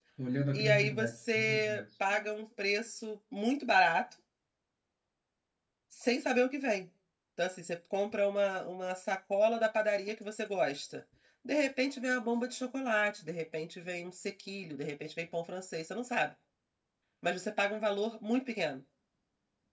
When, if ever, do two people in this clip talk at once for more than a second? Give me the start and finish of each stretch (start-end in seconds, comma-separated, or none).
0.5-1.8